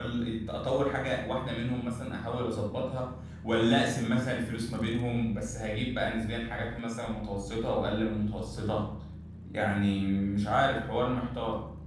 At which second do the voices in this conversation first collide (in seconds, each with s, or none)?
none